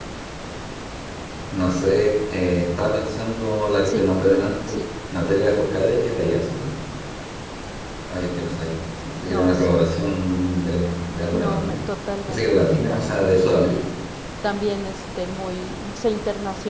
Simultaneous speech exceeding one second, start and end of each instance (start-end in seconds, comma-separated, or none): 12.3-13.8